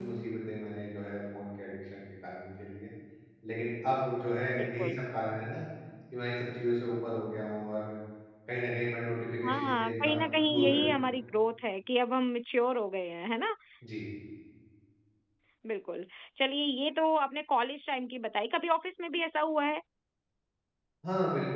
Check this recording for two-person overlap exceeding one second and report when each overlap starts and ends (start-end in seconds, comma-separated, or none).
9.5-11.0